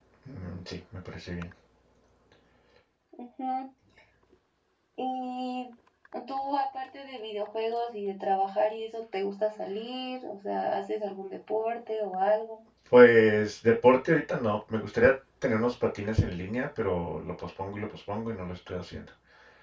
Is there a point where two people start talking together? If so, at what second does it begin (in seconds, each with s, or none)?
none